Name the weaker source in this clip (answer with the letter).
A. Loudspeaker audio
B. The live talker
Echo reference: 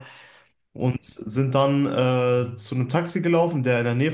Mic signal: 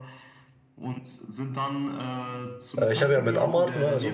A